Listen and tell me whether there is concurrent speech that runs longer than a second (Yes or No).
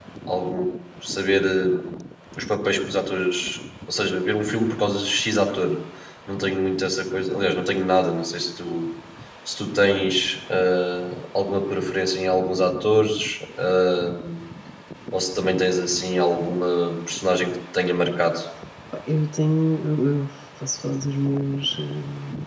No